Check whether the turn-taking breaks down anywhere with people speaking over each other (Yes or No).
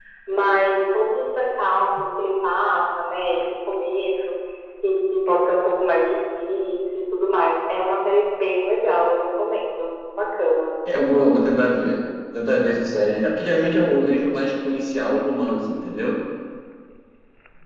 No